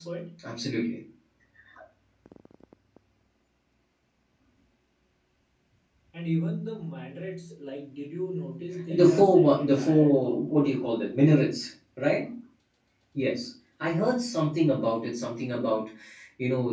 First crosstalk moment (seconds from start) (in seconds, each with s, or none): 8.9 s